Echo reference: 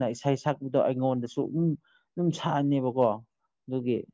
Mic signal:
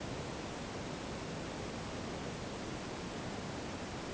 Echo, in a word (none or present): none